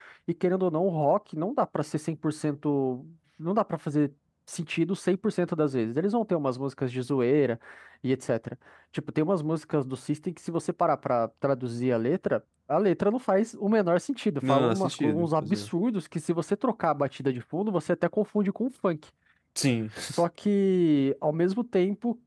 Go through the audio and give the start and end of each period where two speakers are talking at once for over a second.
14.5-15.7

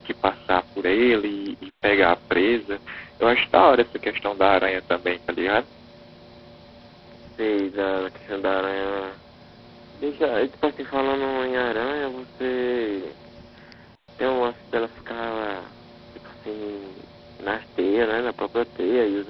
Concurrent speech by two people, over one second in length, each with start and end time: none

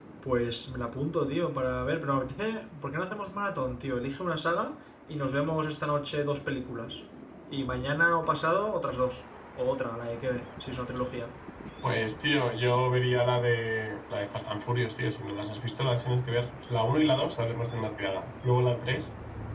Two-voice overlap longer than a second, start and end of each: none

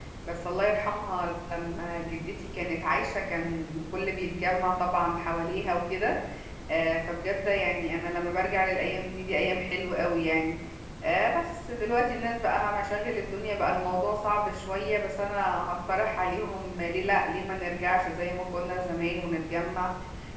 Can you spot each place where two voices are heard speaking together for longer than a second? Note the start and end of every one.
none

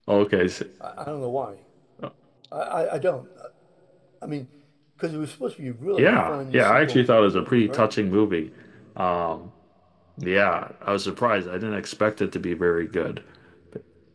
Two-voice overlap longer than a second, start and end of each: 6.0-7.9

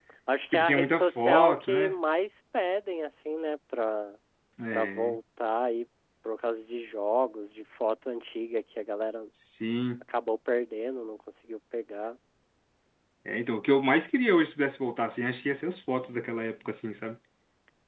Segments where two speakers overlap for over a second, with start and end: 0.5-1.9

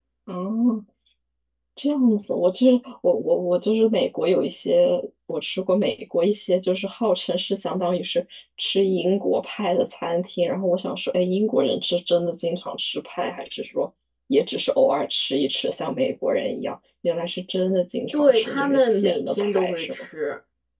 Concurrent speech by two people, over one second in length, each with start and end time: 18.1-20.1

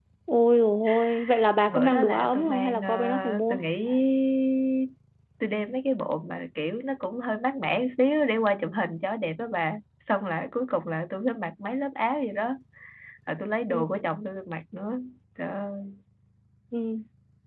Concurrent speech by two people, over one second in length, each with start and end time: 1.7-3.6

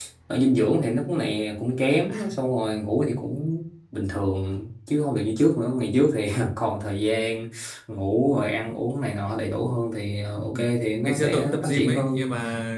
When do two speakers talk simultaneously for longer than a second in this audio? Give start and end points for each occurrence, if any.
11.0-12.2

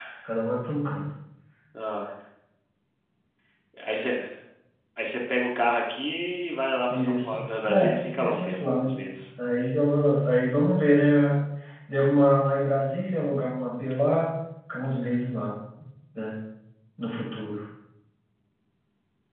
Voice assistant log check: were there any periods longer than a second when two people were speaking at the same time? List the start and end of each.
6.9-8.9

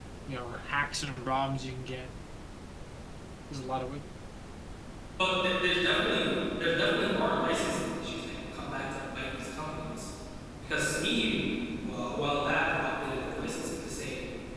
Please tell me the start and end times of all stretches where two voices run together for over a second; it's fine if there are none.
none

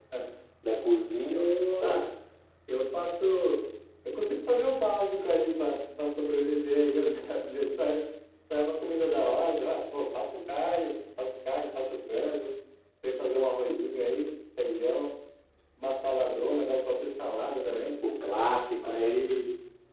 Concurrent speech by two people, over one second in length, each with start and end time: none

